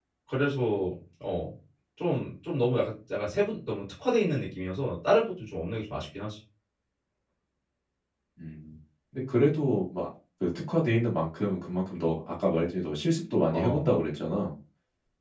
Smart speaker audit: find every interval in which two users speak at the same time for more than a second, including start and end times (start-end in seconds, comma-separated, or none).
none